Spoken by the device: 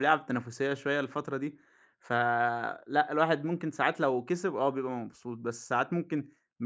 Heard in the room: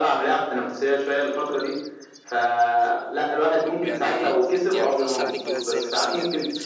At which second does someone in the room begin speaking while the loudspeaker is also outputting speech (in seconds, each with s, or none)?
3.7 s